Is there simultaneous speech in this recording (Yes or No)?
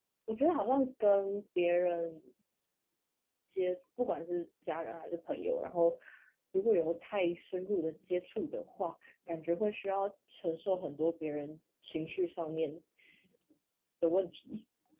No